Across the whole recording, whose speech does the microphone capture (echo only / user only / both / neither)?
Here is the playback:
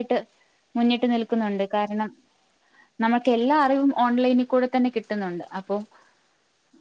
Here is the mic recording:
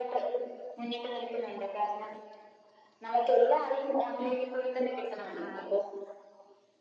both